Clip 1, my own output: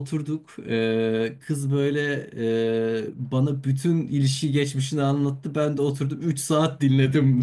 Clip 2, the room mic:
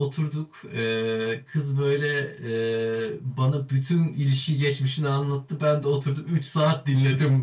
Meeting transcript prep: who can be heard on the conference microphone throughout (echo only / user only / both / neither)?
echo only